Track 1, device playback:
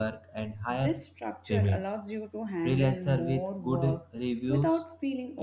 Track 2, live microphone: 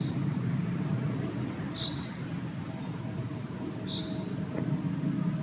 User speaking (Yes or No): No